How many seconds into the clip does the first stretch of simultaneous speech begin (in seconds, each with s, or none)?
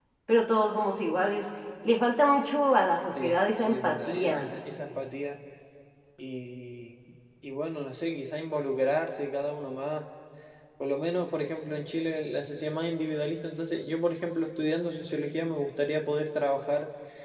3.1 s